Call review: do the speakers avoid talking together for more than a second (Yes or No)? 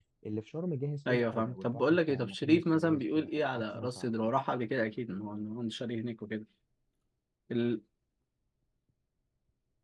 No